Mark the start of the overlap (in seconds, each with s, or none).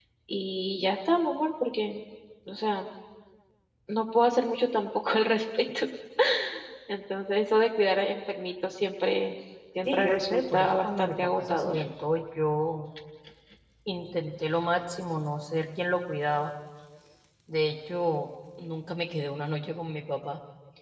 9.8 s